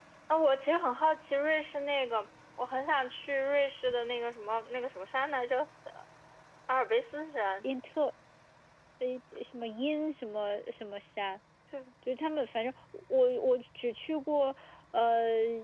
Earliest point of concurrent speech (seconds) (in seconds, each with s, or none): none